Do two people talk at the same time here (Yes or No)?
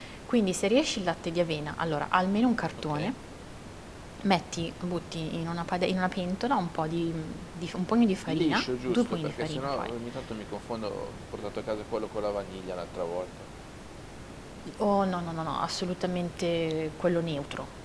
Yes